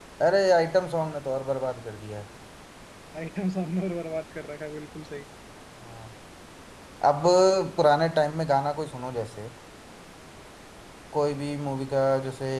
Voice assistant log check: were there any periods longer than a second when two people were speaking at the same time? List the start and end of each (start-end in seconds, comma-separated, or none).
none